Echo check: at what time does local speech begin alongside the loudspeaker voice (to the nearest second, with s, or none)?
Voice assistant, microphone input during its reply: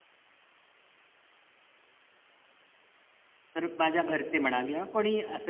4 s